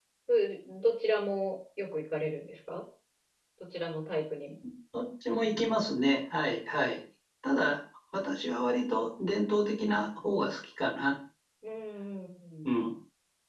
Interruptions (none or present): none